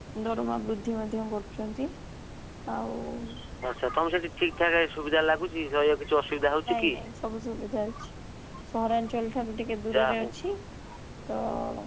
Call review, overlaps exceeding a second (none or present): none